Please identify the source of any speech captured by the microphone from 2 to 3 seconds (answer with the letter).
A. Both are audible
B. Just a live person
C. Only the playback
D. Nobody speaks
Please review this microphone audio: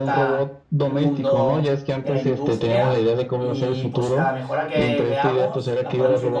A